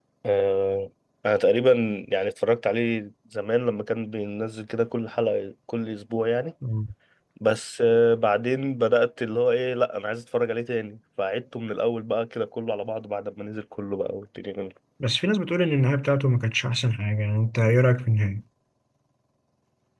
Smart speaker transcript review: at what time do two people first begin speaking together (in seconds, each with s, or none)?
none